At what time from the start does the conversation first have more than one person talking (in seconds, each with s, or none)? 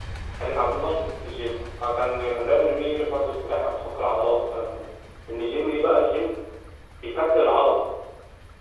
none